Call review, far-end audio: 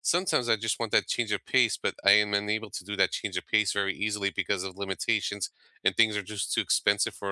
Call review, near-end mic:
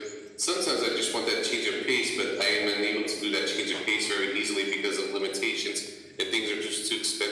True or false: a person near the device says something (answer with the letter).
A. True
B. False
B